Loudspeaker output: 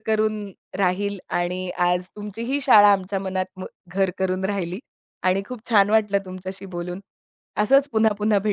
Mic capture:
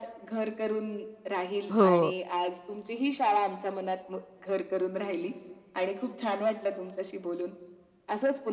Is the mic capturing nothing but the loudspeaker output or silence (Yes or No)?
No